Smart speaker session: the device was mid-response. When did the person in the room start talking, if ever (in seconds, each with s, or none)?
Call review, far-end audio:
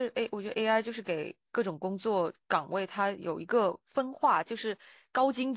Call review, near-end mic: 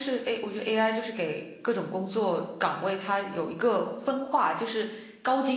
none